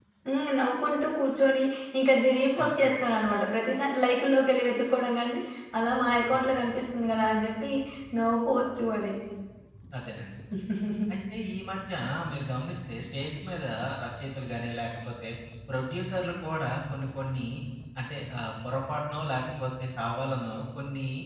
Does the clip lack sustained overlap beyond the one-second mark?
Yes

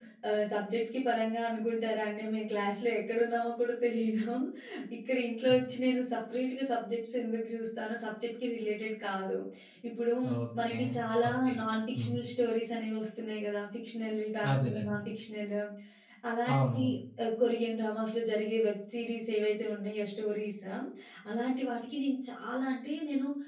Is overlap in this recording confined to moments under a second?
Yes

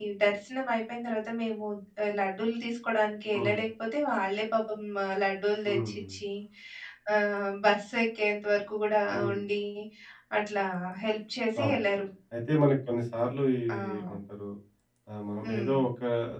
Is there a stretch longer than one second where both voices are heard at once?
No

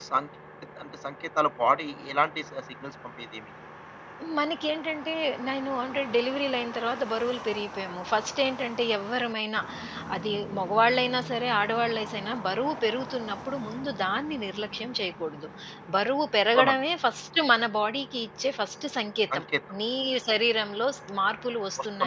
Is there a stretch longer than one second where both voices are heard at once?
No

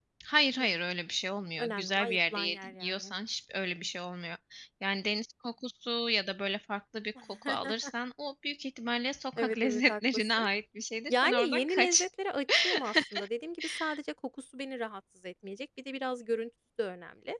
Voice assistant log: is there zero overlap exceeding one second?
No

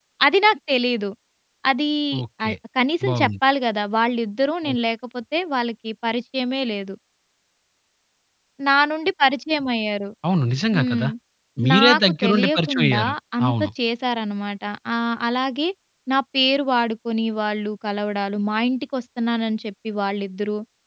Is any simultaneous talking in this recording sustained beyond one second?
Yes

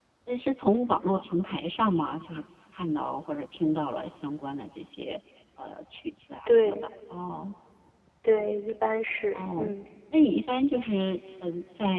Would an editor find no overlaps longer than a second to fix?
Yes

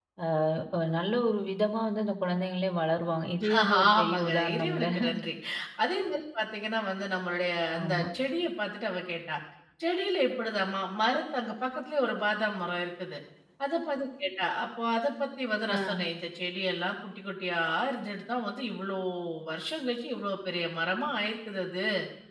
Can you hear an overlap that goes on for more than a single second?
Yes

